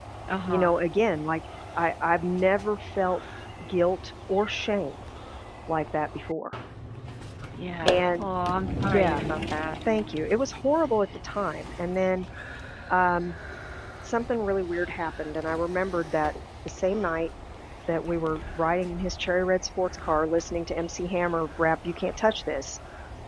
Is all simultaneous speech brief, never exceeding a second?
Yes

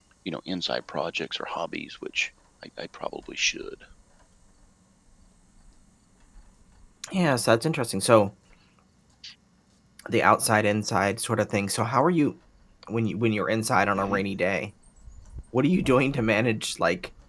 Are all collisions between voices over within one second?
Yes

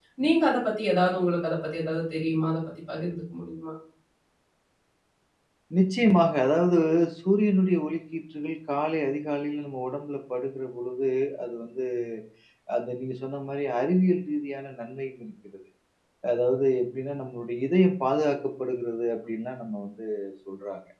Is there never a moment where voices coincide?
Yes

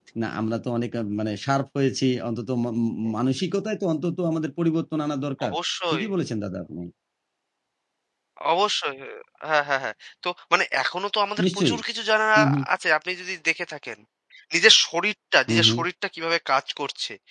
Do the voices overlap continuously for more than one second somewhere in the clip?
No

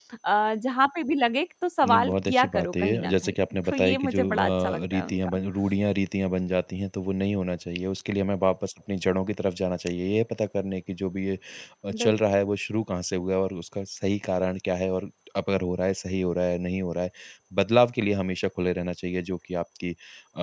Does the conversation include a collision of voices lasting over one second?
Yes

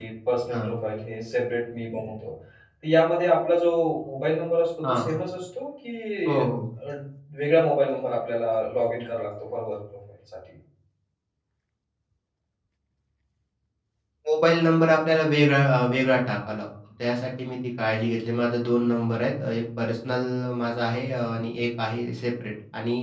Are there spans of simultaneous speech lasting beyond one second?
No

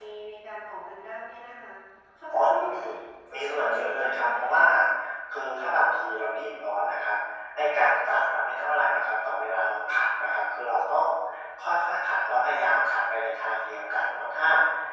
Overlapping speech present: Yes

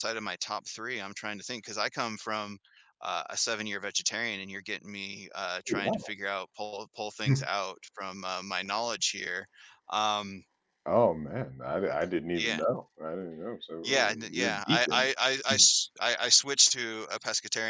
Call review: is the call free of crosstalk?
No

